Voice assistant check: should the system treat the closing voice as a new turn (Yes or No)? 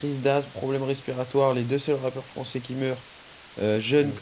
No